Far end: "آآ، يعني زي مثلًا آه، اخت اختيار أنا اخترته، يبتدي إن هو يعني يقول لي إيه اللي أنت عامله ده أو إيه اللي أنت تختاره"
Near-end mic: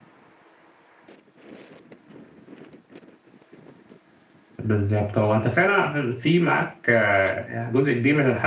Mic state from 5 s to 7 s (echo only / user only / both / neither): user only